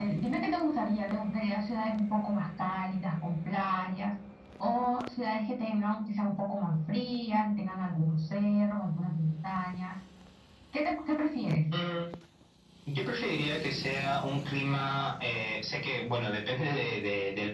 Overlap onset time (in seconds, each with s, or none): none